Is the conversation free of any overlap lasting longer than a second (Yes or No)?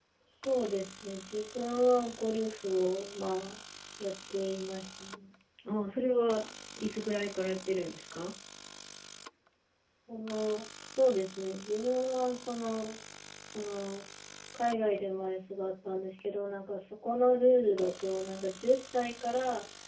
Yes